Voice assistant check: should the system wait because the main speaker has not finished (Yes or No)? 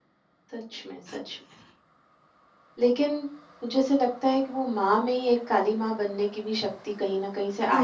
Yes